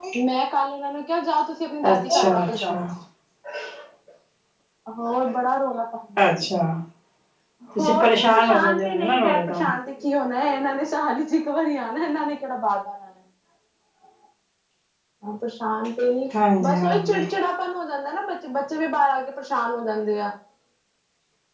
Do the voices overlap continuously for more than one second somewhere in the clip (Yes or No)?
Yes